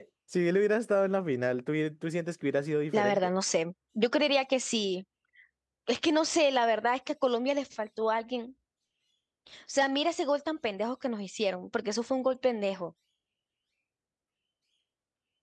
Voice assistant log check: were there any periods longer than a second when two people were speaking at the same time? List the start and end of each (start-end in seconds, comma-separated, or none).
none